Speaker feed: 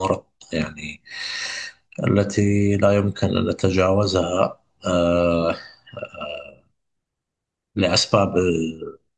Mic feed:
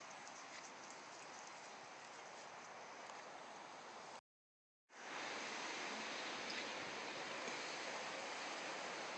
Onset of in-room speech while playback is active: none

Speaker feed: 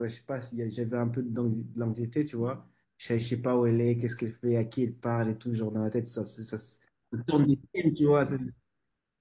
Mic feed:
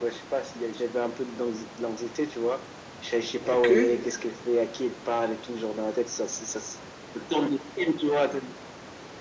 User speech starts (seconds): 4 s

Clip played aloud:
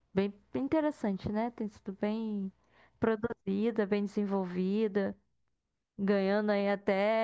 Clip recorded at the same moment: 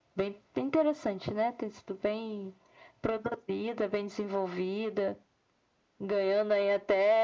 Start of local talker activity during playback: none

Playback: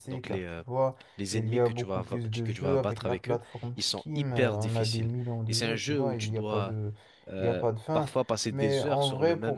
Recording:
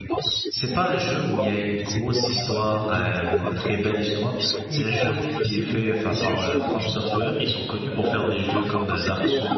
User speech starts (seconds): 0 s

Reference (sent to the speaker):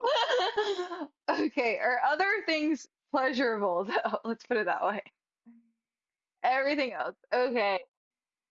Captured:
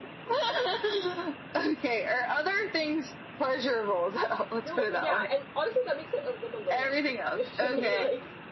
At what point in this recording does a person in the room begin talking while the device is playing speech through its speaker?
5 s

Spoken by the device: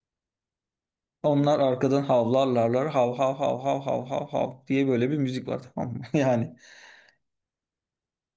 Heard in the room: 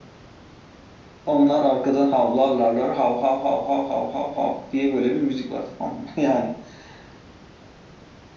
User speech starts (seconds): none

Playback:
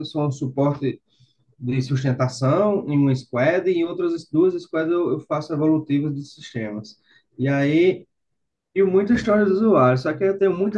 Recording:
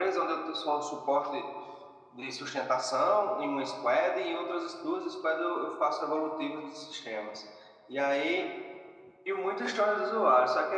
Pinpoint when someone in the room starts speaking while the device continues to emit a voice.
none

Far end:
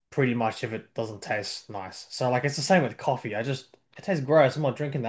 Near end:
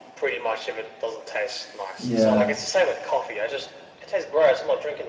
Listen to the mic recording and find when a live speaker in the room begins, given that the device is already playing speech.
2 s

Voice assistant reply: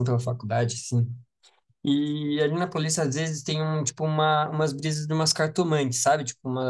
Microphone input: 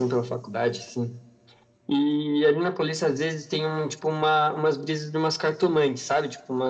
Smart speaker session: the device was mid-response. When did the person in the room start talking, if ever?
none

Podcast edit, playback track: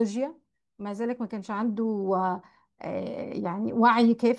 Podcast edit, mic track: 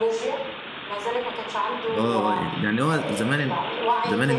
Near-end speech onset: 2 s

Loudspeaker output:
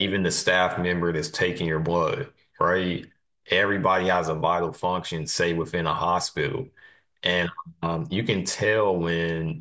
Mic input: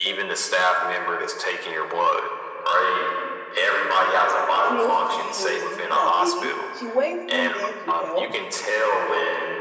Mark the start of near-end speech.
5 s

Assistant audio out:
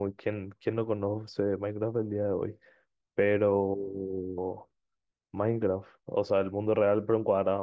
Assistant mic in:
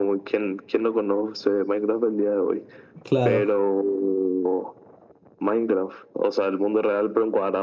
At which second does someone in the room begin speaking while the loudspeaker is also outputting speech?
3 s

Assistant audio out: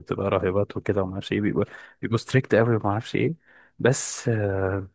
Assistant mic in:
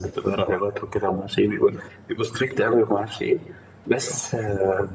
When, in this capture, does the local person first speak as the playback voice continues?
none

